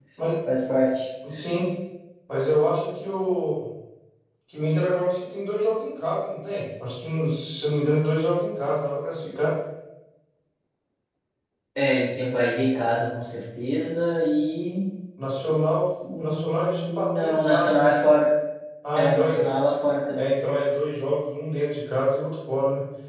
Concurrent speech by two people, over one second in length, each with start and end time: 16.2-18.0

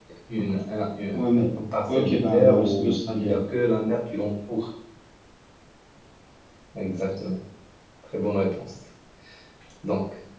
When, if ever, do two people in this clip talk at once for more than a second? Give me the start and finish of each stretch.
1.9-3.4

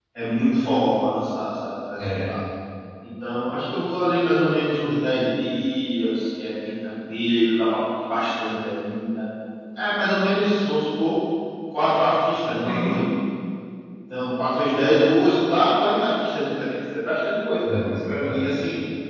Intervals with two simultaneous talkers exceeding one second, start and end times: none

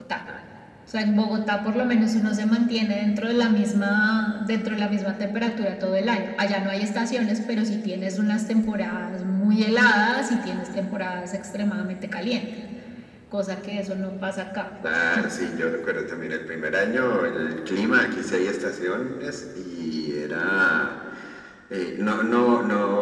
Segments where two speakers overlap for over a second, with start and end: none

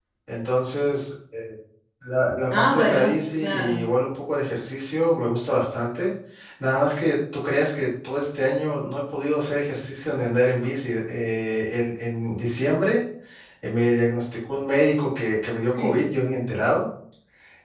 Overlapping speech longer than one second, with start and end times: 2.5-3.8

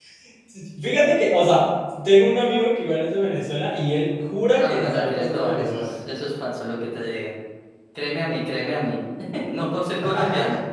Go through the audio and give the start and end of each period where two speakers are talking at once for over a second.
4.6-5.9

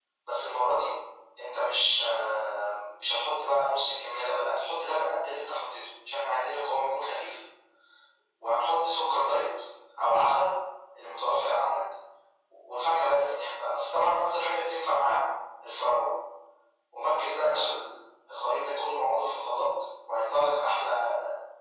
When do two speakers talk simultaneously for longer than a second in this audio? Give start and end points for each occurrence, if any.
none

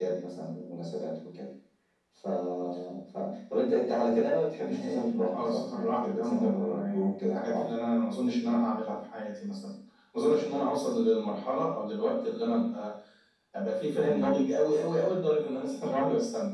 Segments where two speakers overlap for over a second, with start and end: 4.6-7.6

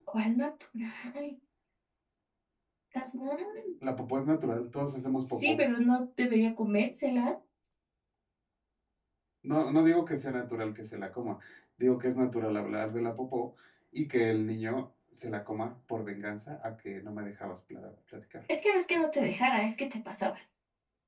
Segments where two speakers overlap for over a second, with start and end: none

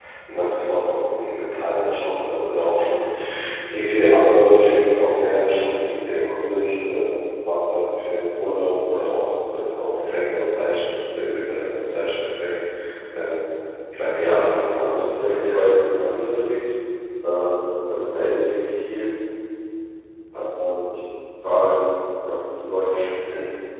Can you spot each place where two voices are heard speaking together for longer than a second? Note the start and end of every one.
14.2-15.6

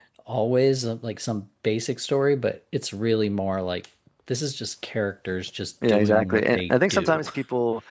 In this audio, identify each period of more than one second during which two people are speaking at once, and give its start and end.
5.9-7.2

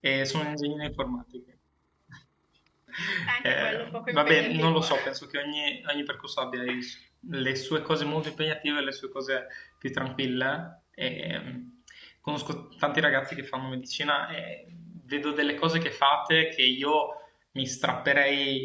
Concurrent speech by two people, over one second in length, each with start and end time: 3.4-4.9

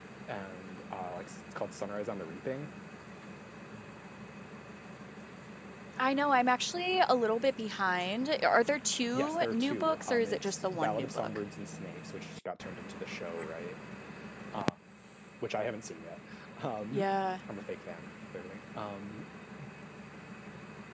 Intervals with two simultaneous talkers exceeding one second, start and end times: 9.1-11.4

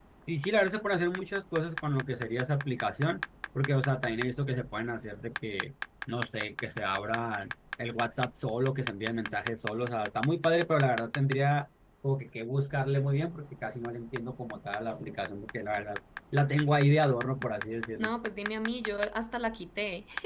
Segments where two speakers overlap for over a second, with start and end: none

